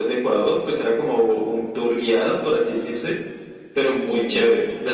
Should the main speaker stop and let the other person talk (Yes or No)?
No